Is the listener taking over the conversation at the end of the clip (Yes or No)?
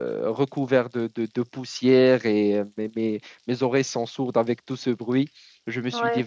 No